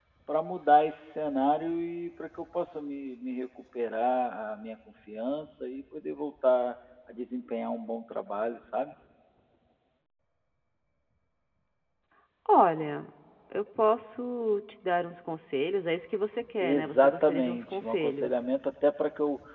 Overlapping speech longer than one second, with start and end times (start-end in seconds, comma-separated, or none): 16.6-18.4